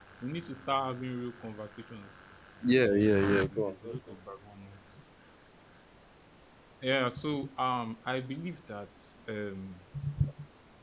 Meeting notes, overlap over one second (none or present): present